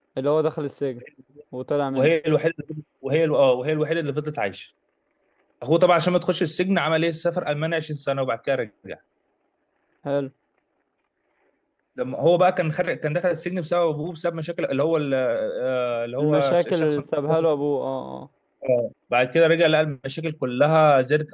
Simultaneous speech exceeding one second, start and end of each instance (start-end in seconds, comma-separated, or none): 16.2-17.4